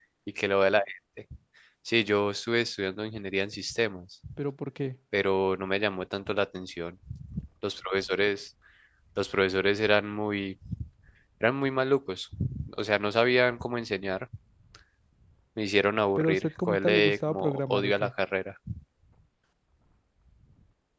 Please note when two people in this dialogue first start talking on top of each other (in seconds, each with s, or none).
16.2 s